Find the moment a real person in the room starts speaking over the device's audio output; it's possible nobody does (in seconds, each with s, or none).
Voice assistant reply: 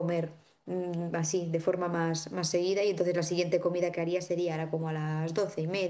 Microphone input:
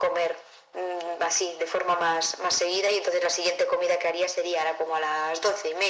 none